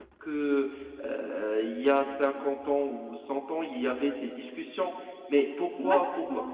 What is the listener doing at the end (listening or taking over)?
listening